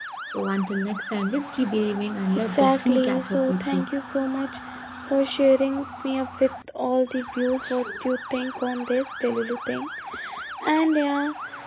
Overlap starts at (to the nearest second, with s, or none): 2 s